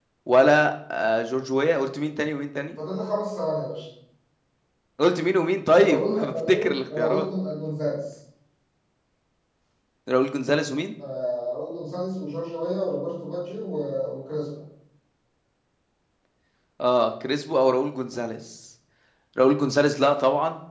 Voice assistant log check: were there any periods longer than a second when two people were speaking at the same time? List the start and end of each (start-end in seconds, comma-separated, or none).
5.7-7.3